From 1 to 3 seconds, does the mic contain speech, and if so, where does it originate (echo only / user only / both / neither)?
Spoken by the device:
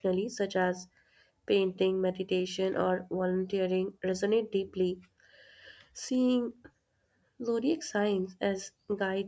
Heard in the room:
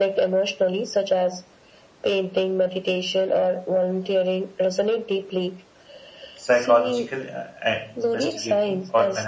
echo only